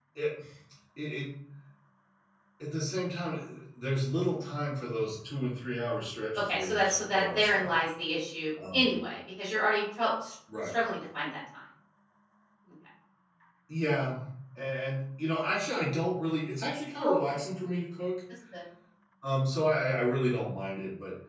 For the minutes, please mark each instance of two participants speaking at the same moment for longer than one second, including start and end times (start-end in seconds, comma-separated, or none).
6.5-7.7